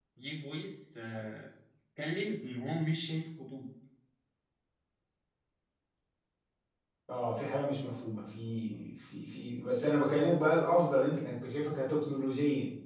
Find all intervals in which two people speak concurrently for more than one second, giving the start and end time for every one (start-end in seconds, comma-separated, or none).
none